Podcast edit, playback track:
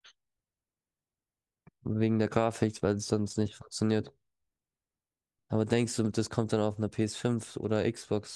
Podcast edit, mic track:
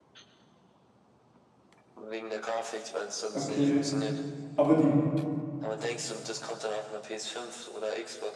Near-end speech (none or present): present